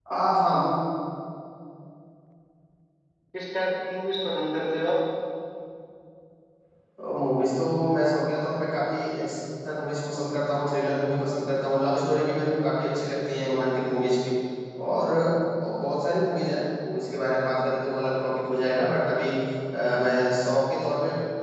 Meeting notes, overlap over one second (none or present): none